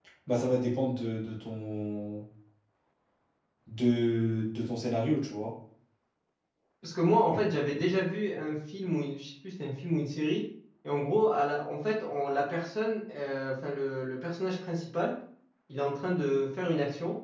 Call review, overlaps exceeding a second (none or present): none